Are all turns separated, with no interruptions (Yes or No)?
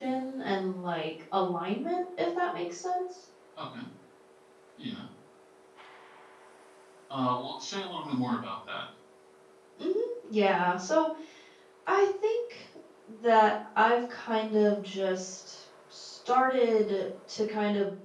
Yes